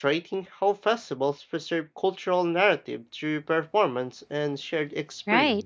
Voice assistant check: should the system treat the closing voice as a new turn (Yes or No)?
Yes